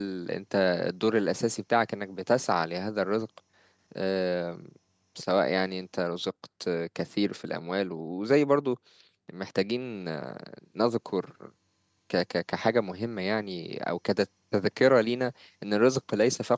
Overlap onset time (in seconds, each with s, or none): none